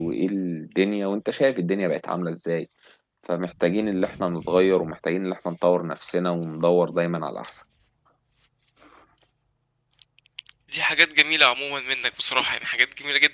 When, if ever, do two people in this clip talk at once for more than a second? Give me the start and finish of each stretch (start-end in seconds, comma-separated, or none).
none